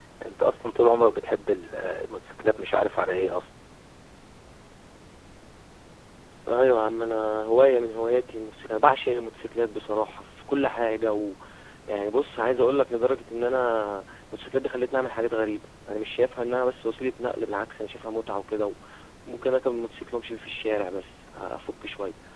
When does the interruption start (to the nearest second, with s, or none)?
none